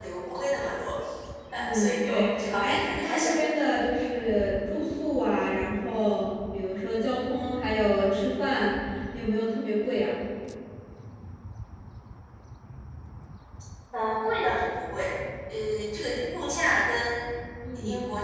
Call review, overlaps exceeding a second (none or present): present